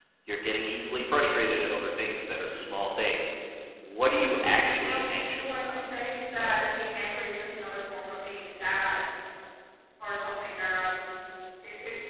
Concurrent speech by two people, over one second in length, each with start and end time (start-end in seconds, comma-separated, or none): 4.1-5.8